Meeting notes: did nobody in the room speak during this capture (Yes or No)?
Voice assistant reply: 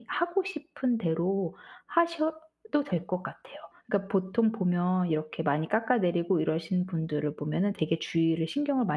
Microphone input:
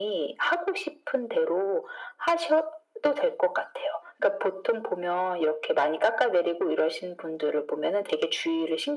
Yes